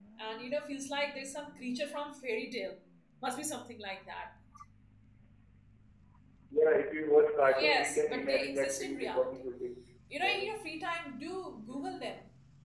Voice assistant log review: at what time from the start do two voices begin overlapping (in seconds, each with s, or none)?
7.6 s